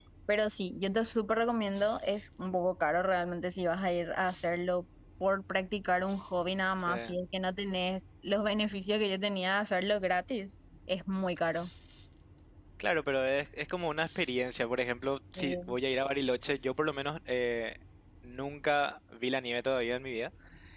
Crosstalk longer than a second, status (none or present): none